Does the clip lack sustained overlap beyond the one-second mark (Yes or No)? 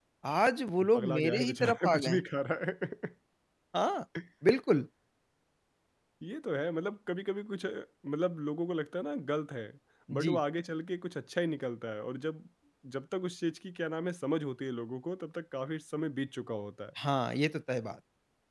No